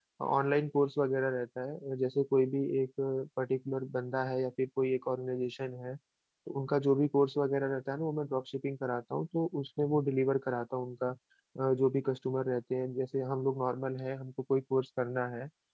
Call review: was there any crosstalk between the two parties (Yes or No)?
No